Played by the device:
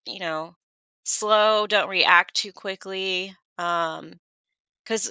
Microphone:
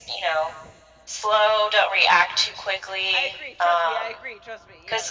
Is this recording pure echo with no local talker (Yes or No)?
No